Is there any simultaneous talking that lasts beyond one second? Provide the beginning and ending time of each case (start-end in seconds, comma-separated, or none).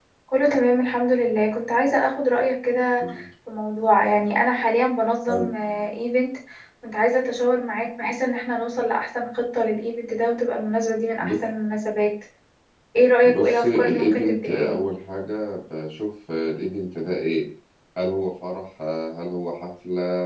13.2-14.8